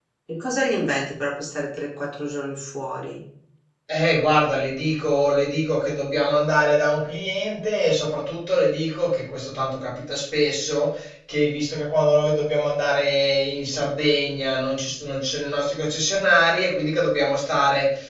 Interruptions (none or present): none